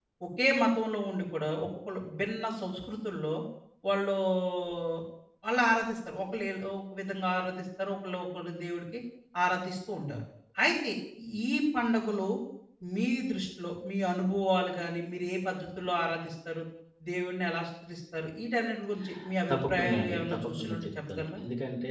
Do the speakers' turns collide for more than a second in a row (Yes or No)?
Yes